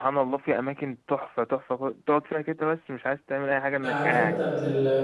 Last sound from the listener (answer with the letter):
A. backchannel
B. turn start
B